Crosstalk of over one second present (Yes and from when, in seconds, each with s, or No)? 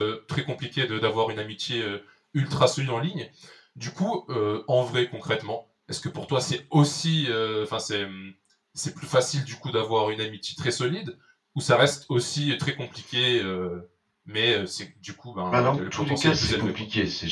Yes, from 15.5 s